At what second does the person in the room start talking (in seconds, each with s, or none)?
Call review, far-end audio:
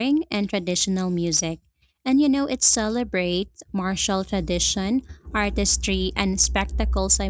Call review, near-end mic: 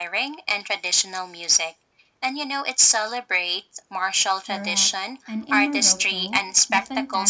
4.5 s